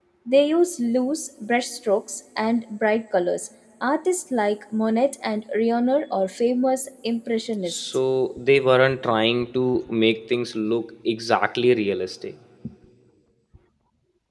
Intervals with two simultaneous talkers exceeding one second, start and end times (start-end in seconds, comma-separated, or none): none